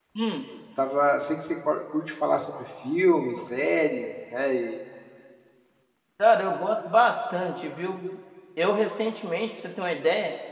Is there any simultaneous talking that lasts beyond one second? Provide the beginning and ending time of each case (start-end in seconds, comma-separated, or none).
none